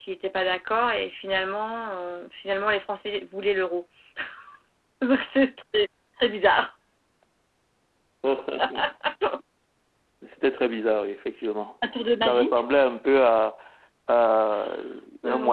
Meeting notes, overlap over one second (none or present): none